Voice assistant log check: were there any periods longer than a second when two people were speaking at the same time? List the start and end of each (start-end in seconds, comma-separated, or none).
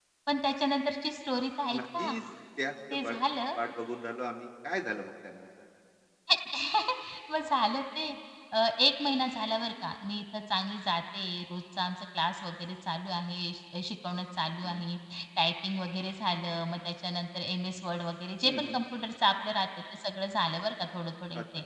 none